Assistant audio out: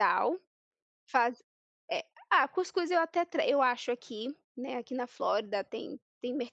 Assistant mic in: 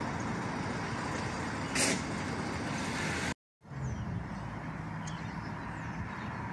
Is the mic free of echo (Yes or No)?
Yes